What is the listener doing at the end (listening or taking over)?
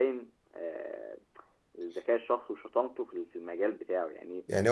taking over